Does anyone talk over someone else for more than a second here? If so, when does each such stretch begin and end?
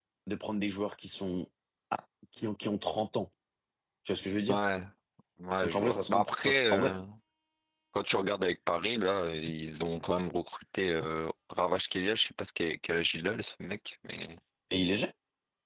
5.6-6.9

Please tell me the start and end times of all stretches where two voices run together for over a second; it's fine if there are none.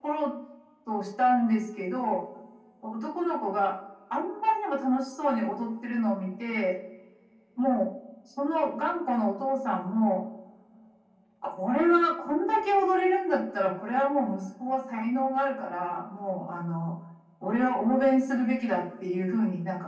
none

